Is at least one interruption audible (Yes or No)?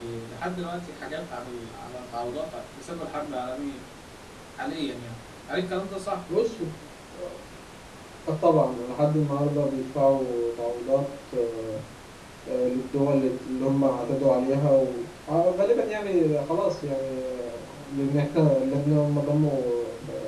No